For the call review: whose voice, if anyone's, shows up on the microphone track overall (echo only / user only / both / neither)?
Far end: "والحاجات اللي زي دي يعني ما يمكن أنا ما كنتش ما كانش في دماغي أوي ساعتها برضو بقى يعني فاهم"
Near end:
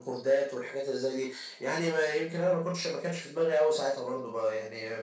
echo only